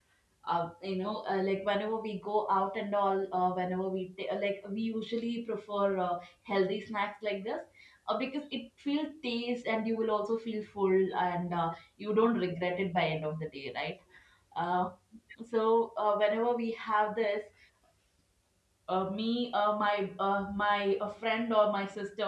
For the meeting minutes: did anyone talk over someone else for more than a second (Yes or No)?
No